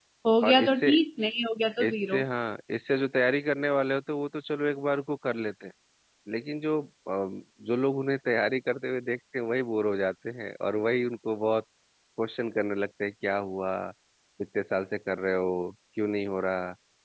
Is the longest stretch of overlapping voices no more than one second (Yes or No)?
Yes